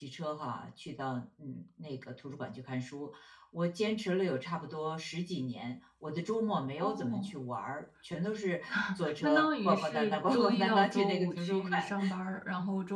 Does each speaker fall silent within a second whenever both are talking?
No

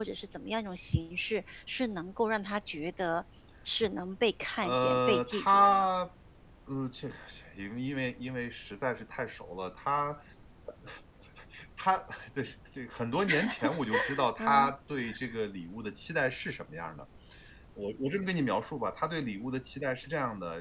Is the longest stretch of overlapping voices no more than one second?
No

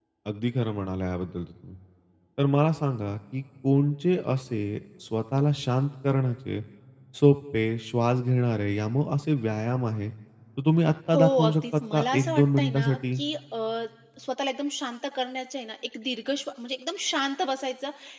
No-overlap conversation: No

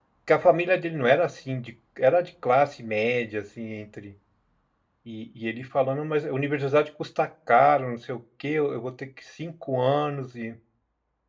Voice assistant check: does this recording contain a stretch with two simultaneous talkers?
No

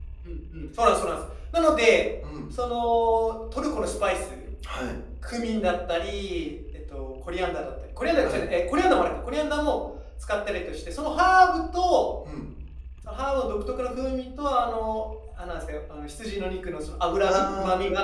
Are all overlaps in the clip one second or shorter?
Yes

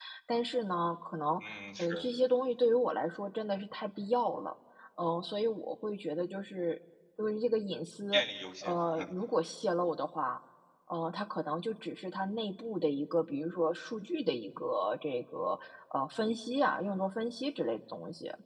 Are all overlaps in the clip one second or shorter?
Yes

